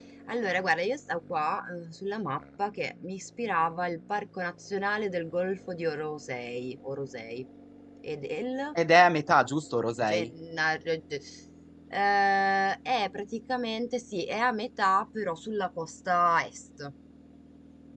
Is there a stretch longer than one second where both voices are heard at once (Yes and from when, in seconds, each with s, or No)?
No